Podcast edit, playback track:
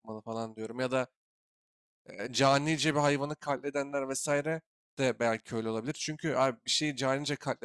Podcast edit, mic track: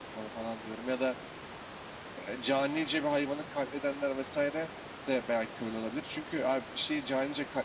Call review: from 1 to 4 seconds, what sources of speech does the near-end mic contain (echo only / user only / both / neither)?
echo only